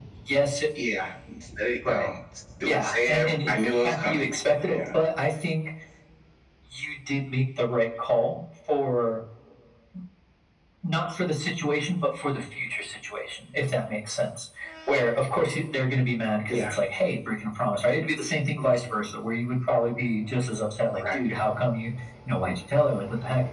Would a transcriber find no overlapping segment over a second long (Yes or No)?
No